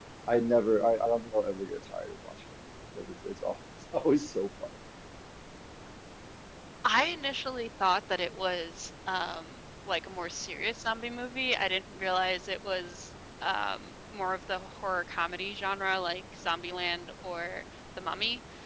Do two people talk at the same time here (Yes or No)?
No